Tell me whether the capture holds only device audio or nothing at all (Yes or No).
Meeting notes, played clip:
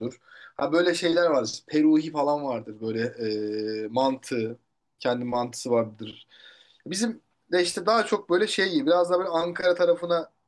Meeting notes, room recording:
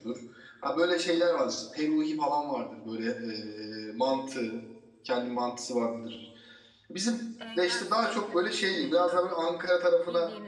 No